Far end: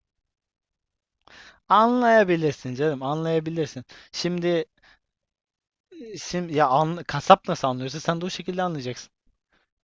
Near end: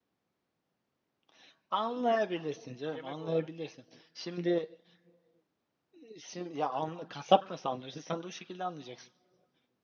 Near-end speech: present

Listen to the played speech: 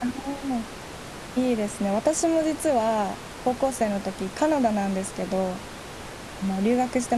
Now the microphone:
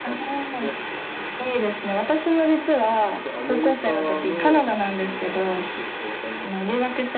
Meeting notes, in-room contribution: present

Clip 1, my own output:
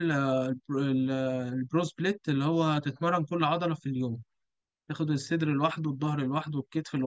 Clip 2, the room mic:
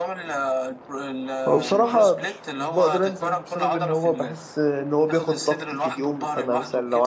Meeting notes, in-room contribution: present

